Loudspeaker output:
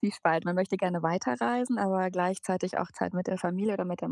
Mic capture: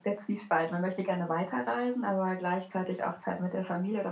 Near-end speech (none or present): none